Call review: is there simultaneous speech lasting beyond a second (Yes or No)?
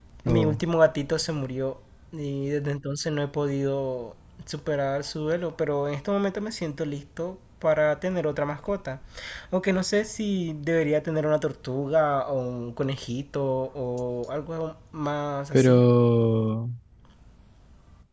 No